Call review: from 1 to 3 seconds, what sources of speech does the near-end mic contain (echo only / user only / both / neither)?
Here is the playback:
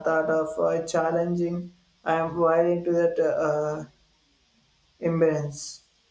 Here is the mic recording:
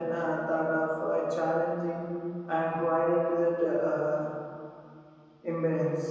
echo only